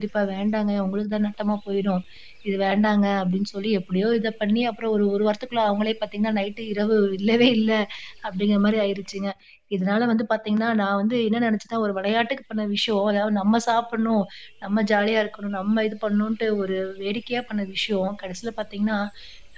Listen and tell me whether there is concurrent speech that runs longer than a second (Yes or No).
No